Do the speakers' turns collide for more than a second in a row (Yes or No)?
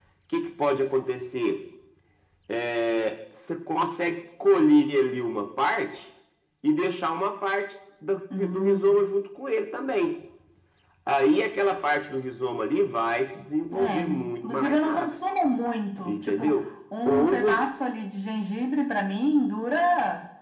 Yes